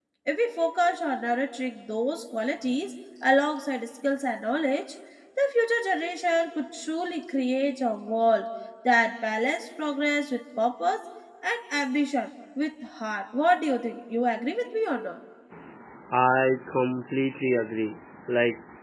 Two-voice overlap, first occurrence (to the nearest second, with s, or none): none